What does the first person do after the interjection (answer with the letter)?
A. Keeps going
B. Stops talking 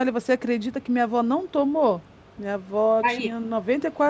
A